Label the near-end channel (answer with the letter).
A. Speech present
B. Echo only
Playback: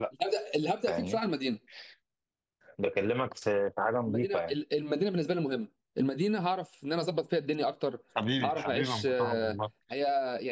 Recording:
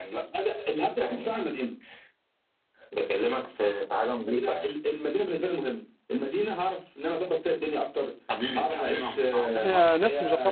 A